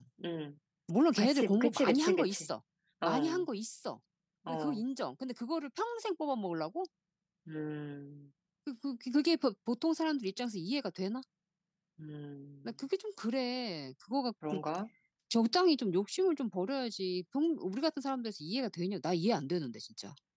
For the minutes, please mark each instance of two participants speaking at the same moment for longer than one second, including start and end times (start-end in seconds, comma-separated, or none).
1.2-2.5